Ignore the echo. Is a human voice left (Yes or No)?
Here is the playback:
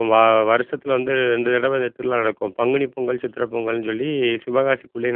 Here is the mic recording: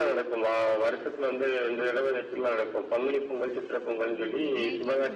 Yes